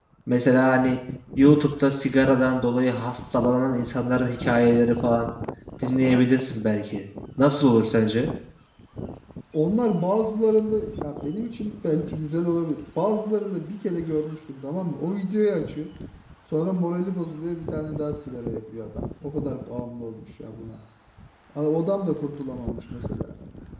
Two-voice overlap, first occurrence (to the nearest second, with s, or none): none